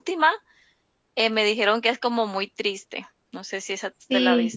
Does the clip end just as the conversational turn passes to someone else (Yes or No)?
Yes